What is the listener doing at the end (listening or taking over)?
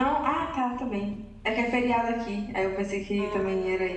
taking over